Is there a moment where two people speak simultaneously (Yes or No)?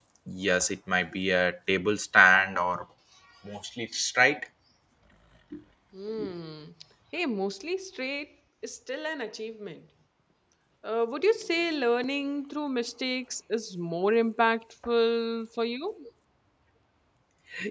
No